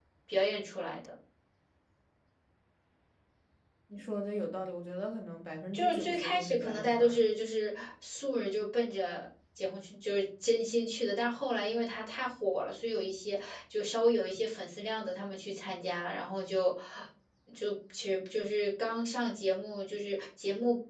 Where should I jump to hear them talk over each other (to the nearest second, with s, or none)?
6 s